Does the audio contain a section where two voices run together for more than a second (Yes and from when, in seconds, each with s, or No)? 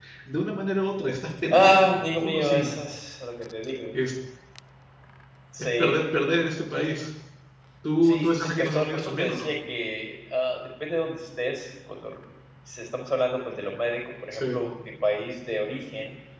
Yes, from 1.5 s